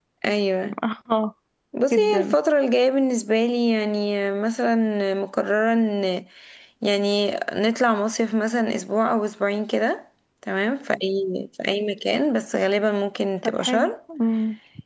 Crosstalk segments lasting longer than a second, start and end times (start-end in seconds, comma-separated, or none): none